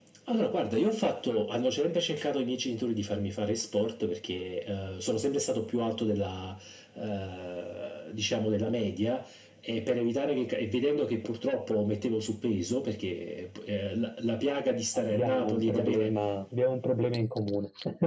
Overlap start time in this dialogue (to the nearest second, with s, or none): 15 s